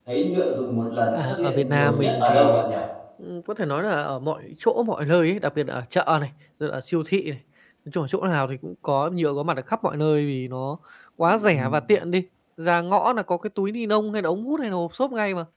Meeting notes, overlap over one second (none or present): present